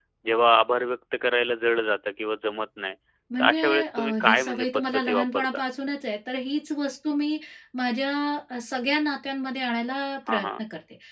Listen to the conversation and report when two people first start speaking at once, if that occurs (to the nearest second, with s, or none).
3 s